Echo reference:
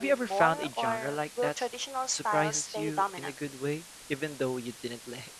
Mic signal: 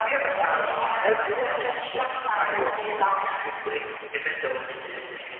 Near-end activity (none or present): present